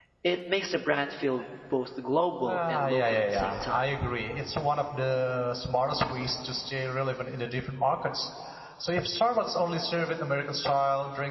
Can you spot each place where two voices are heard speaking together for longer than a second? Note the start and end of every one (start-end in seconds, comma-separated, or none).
2.5-3.9